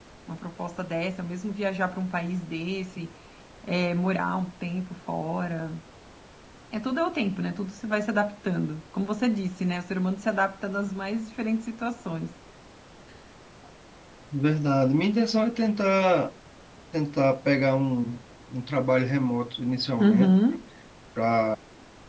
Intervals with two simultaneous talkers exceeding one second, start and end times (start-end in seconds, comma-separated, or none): none